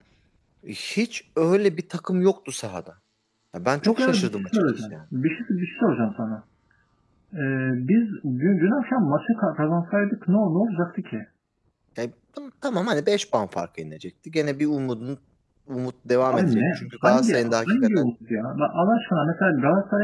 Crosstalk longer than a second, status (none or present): present